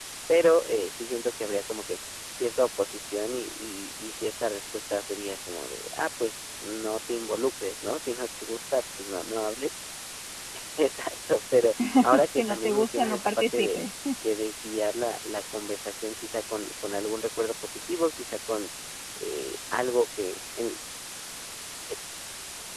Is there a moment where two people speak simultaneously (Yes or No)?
Yes